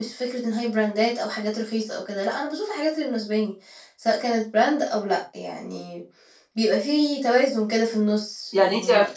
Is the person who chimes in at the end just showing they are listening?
No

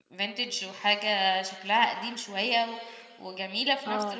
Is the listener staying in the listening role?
No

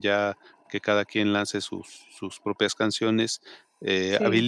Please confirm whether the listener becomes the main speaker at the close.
No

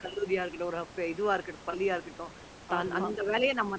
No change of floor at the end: Yes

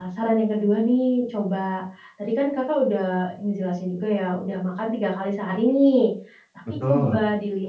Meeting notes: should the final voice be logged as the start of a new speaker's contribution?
No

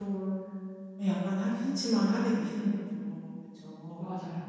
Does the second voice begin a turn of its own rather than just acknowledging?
No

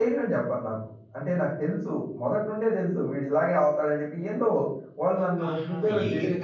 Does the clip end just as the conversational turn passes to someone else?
Yes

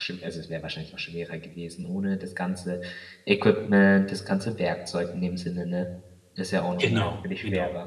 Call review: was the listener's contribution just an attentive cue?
No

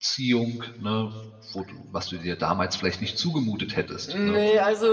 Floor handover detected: Yes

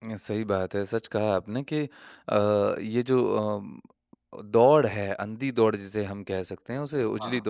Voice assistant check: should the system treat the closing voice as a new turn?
No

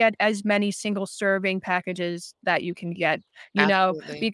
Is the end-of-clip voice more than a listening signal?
No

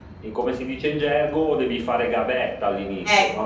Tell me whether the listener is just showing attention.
No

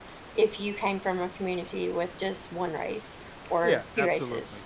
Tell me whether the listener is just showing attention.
No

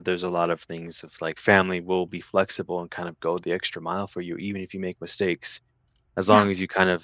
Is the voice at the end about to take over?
No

